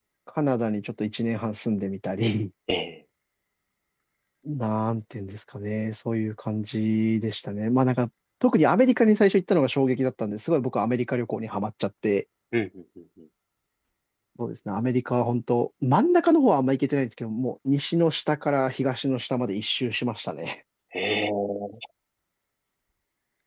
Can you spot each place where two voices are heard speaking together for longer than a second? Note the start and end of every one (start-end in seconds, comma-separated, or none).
none